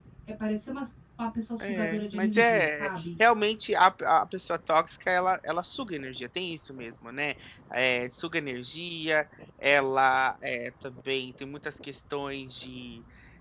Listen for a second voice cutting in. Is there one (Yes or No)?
Yes